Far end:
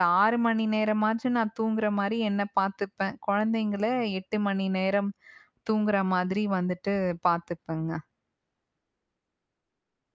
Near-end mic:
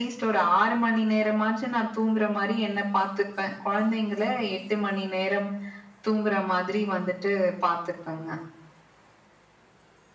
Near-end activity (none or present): none